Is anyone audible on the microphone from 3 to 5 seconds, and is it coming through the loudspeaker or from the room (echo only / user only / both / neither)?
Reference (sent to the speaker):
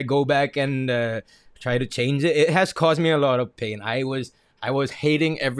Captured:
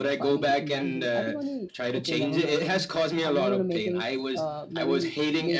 both